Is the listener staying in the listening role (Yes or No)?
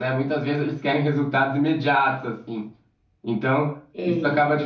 Yes